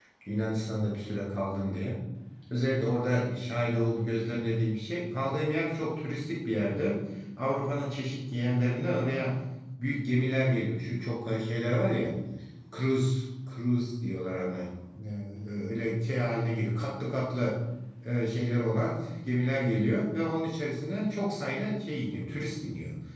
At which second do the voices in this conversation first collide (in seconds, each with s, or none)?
none